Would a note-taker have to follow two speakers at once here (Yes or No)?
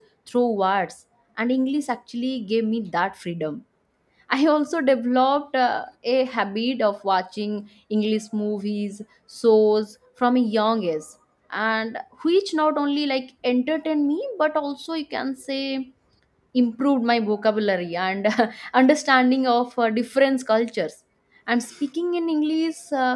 No